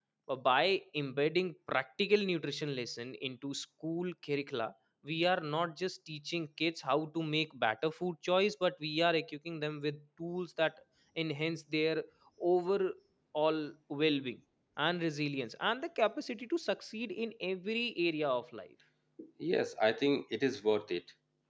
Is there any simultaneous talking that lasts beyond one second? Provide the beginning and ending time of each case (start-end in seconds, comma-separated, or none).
none